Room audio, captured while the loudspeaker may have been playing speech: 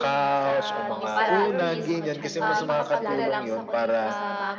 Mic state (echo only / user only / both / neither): both